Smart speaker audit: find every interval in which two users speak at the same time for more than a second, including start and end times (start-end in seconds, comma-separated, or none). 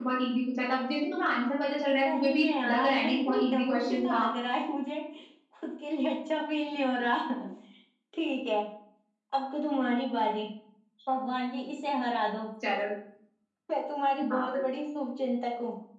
2.1-4.2